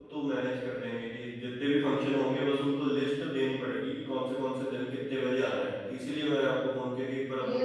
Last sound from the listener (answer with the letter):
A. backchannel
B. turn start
B